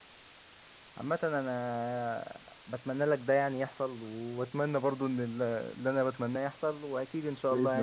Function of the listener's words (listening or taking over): taking over